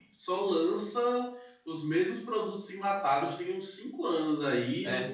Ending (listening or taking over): listening